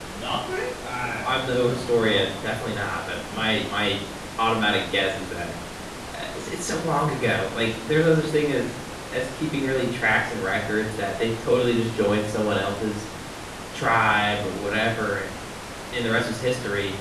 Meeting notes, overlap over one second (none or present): present